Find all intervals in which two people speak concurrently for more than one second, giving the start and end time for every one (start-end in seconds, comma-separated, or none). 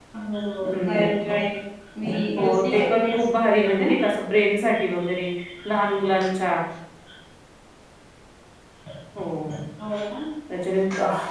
2.4-3.9